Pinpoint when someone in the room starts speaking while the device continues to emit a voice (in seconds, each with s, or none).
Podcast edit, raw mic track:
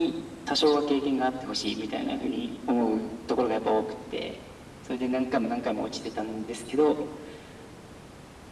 none